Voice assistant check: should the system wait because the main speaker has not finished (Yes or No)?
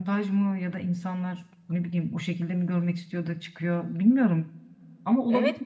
No